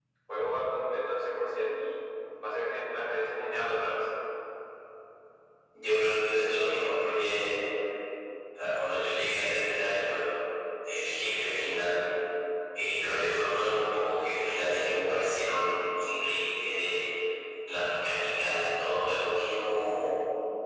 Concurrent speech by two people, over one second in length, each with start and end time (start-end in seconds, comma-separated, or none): none